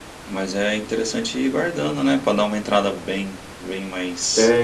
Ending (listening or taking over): taking over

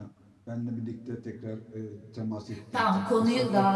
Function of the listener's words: taking over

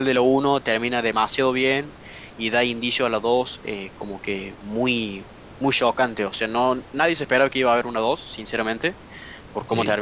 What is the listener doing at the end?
listening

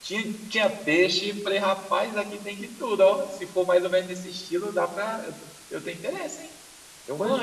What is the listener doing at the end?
taking over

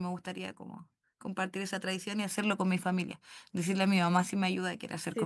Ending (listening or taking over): taking over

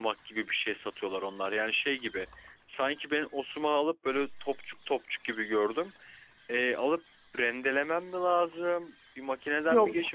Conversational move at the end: listening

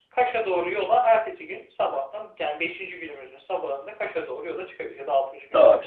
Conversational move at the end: taking over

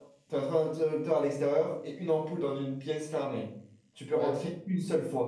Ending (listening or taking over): listening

